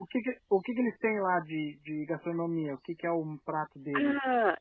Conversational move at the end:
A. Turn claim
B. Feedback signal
A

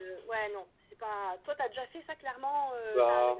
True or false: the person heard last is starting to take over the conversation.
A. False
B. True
B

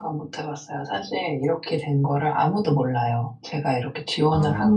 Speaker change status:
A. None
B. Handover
A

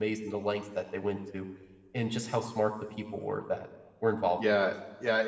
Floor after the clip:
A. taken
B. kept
A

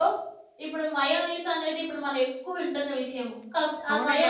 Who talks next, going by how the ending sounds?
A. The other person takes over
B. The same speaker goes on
A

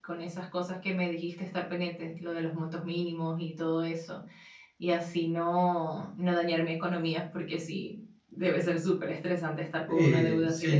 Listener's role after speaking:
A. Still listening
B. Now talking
B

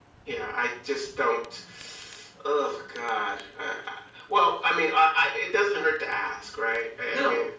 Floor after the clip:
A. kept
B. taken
B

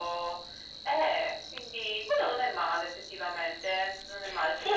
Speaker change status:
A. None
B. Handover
B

